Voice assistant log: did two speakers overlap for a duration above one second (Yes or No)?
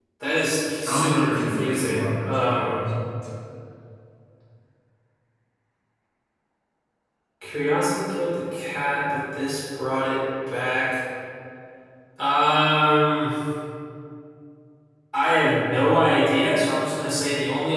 Yes